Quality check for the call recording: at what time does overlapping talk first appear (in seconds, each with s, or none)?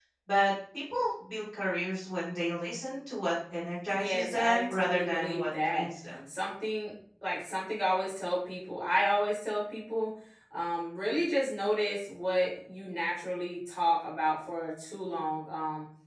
3.9 s